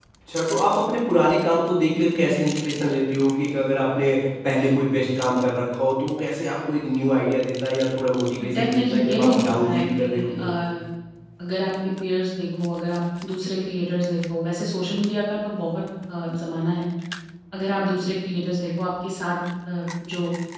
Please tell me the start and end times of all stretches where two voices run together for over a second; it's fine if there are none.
8.5-10.5

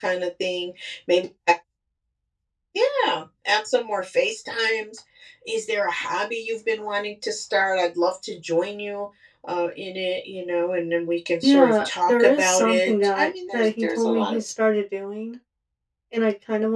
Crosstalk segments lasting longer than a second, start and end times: 11.4-14.4

